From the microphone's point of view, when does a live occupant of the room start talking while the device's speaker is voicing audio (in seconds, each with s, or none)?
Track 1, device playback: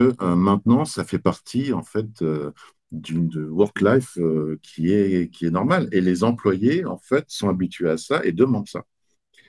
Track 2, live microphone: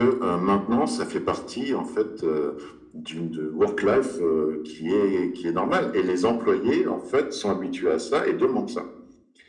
none